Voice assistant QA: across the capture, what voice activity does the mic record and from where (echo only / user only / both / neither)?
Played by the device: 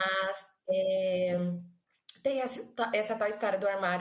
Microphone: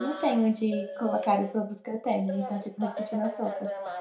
both